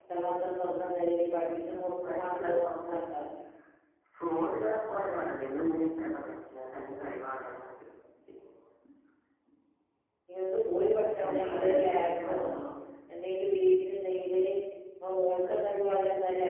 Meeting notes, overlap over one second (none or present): present